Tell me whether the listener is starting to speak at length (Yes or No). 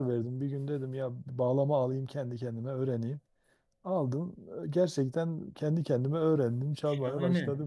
Yes